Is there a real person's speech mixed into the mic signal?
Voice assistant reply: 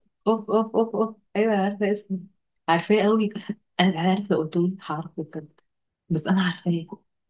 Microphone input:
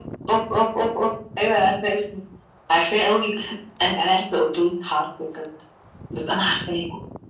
No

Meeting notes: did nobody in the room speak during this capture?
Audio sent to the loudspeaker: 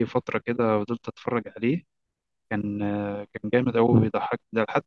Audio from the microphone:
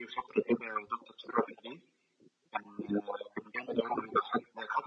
Yes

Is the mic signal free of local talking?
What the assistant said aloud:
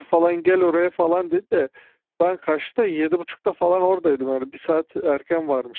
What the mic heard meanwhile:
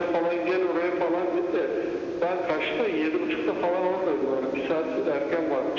Yes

